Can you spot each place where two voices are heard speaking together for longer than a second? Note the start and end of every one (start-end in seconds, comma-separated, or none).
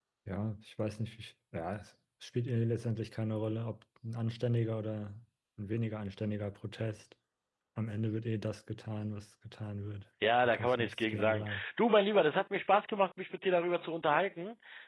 10.4-11.6